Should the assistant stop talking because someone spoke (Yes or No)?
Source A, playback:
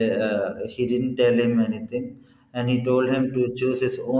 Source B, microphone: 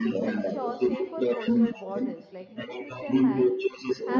Yes